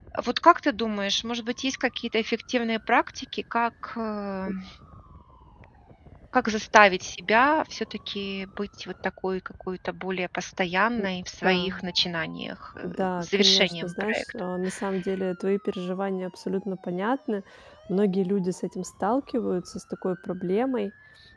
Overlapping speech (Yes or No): Yes